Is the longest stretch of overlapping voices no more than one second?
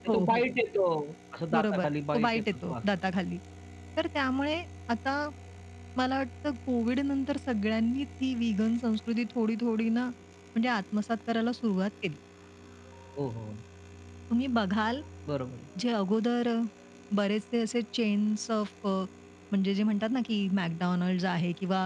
No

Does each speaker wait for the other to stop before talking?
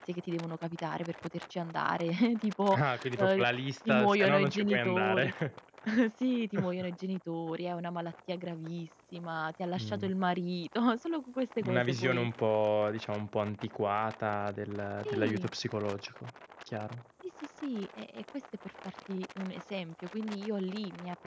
No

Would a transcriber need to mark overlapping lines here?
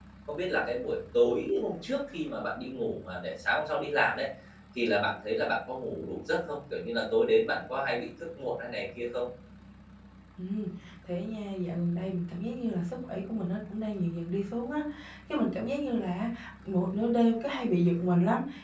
No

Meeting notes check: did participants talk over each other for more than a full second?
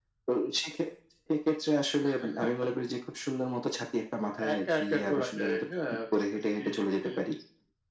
Yes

